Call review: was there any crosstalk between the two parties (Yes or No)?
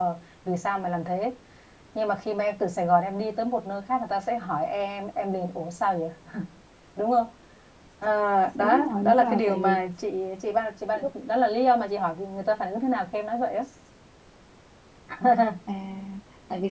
Yes